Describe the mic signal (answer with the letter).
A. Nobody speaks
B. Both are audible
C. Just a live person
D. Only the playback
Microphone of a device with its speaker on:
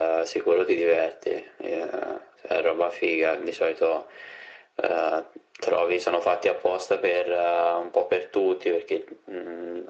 D